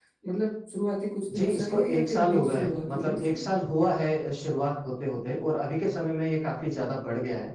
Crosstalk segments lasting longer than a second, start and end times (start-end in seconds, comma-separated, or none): 1.3-3.4